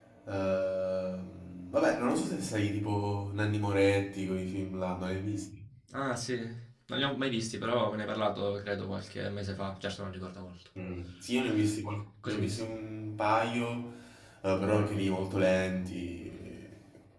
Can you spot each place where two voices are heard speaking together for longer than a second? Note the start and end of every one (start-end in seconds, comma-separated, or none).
none